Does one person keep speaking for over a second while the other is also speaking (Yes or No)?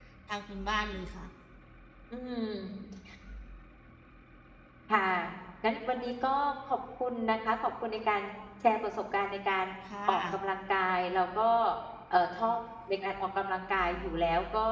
No